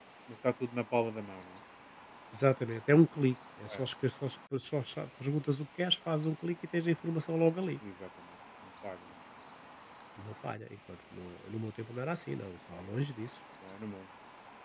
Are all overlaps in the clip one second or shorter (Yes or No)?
Yes